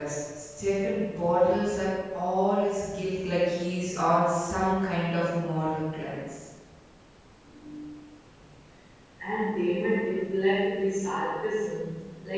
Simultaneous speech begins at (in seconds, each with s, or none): none